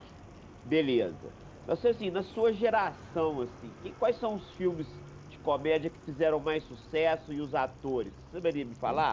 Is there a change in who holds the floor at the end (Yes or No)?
Yes